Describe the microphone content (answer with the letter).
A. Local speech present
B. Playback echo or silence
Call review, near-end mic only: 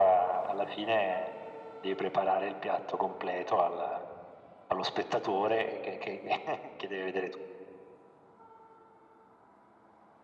B